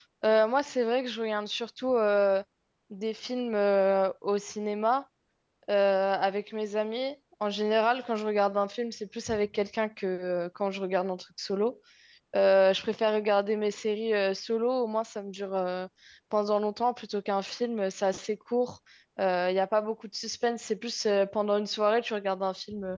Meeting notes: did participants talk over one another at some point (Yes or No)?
No